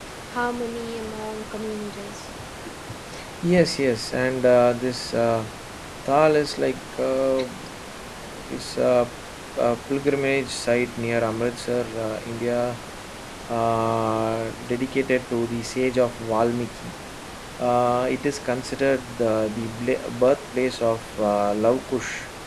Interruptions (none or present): none